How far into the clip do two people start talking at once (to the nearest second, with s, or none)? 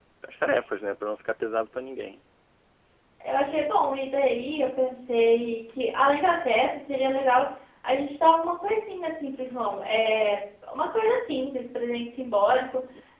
none